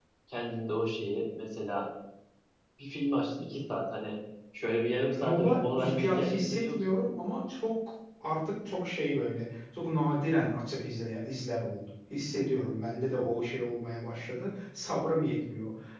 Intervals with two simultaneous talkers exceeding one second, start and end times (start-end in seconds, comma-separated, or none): 5.2-6.8